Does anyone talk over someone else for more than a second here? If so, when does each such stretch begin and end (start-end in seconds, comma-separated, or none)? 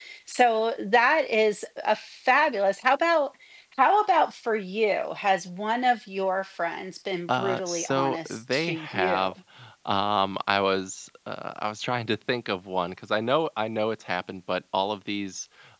7.3-9.3